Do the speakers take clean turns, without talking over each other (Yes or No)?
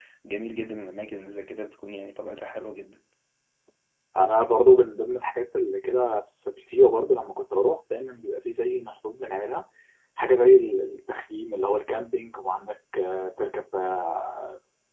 Yes